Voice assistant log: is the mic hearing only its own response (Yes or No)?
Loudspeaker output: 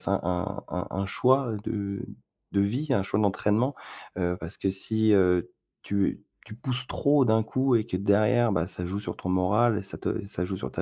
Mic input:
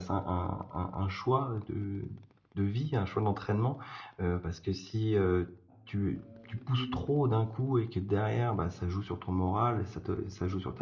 No